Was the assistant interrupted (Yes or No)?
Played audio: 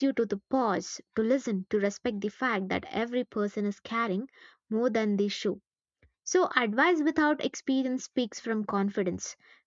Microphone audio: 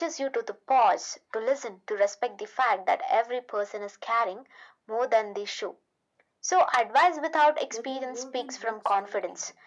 Yes